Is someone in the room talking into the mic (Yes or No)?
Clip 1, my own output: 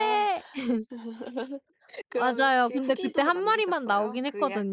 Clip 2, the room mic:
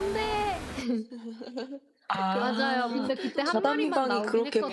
Yes